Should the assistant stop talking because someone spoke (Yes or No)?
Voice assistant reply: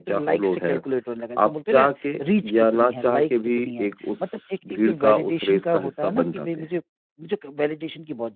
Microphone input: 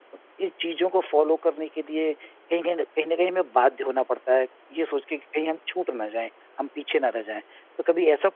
Yes